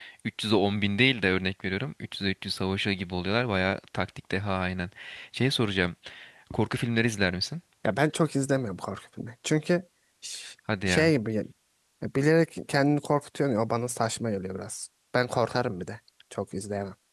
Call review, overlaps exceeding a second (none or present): none